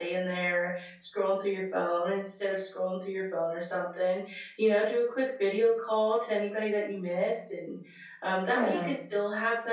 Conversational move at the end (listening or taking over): listening